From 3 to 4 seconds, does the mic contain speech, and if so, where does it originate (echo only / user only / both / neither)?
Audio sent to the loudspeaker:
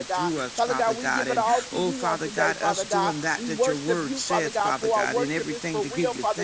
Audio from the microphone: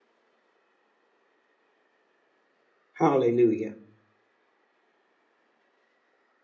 user only